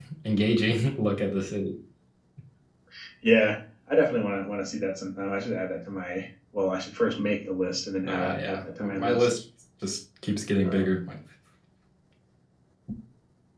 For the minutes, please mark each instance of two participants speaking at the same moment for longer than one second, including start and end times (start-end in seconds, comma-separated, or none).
8.1-9.3